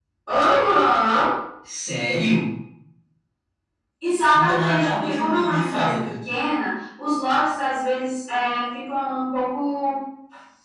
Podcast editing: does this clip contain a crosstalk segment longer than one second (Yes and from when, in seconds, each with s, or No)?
Yes, from 4.3 s